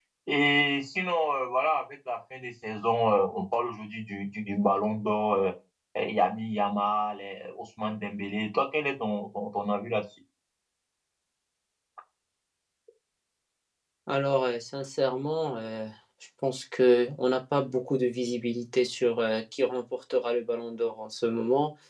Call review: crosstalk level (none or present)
none